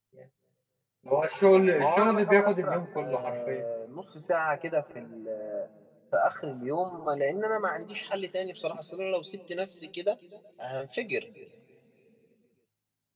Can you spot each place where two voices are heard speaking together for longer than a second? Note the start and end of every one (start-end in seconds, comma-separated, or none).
1.8-3.6